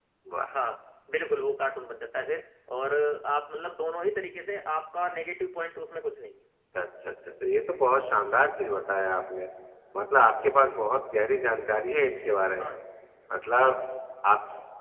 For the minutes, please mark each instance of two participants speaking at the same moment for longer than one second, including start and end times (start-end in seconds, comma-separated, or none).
none